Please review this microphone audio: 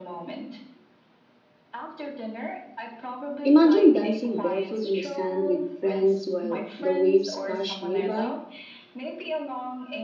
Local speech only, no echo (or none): Imagine dancing barefoot on the sand with friends while the waves crash nearby.